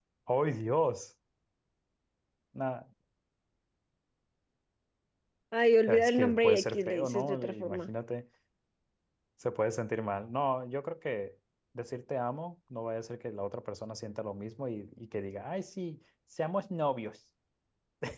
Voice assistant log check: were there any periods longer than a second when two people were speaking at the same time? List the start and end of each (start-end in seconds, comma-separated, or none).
5.9-7.9